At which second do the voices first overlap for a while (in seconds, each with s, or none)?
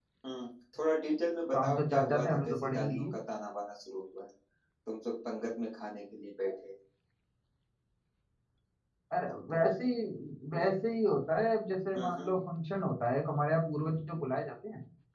1.5 s